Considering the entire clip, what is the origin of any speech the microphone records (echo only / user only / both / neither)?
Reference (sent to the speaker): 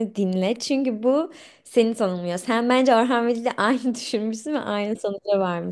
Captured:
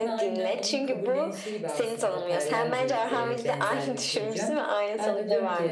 both